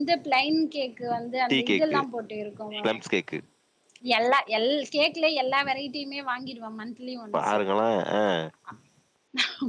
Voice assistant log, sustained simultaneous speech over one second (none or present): none